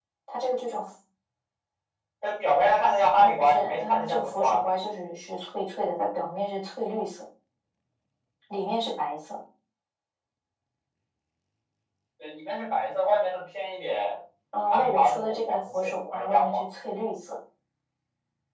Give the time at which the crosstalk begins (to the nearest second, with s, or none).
3 s